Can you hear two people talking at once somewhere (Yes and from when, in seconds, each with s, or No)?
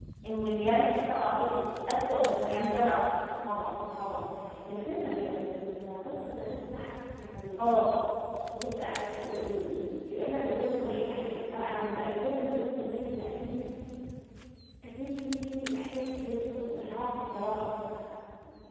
No